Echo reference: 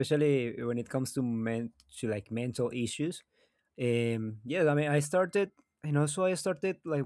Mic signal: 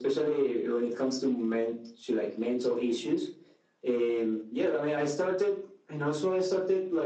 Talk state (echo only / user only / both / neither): echo only